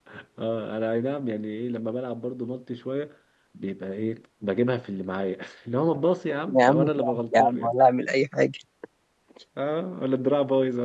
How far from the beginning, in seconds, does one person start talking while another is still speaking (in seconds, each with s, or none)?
6.5 s